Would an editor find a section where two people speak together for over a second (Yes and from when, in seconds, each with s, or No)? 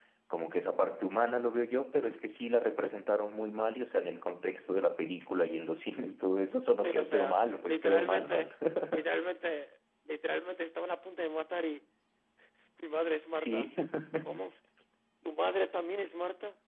Yes, from 6.8 s